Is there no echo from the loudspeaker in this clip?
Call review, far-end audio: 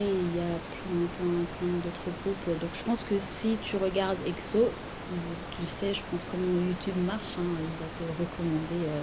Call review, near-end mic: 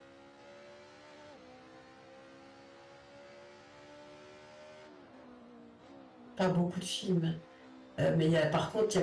Yes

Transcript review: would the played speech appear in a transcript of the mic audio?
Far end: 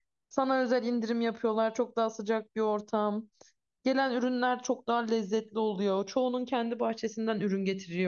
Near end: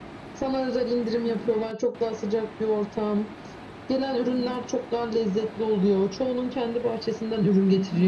Yes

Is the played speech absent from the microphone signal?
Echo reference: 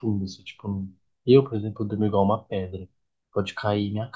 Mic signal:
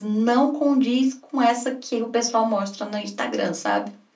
Yes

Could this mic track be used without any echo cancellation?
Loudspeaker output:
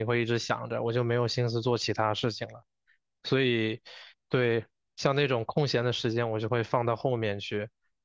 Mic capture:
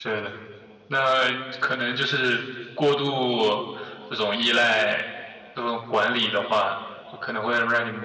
Yes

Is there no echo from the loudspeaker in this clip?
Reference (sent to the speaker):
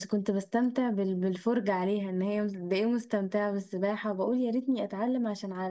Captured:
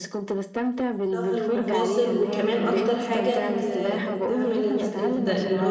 No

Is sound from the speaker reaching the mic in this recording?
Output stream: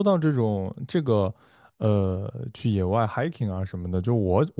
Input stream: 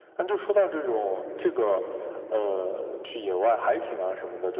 Yes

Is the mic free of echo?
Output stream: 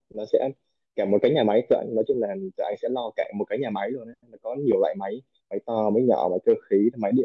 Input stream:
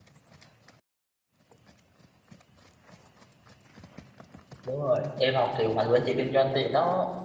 Yes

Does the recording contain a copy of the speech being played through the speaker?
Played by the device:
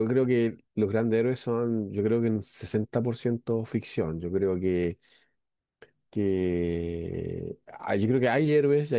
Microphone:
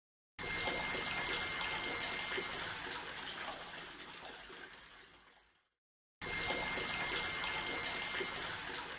No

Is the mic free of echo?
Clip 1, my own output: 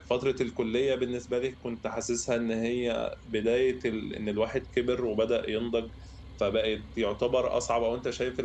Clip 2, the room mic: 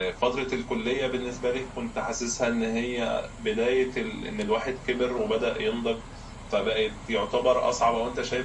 No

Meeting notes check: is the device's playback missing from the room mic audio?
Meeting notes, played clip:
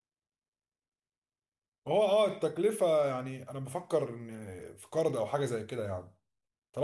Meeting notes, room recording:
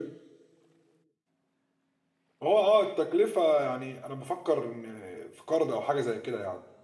No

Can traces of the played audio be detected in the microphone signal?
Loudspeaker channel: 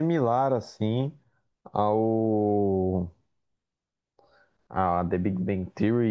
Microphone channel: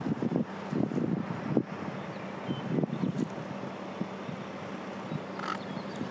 No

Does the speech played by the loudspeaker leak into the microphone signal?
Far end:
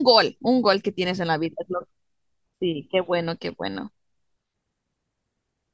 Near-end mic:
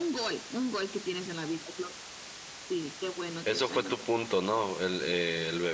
Yes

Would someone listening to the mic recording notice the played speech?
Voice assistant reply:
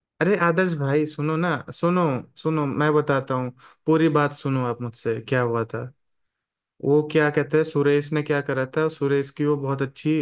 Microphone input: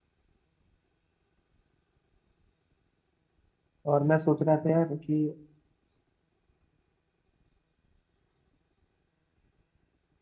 No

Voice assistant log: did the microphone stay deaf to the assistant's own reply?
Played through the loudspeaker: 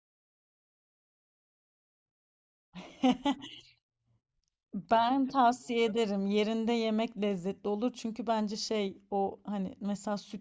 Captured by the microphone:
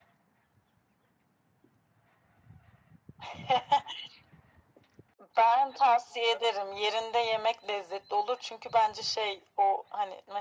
No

